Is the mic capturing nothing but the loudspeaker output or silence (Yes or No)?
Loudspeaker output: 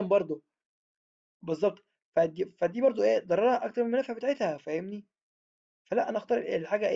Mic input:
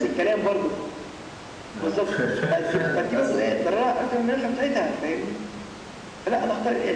No